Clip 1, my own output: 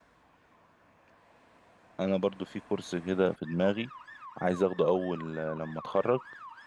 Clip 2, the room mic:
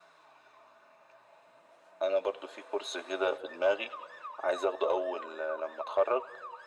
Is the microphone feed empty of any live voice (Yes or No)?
Yes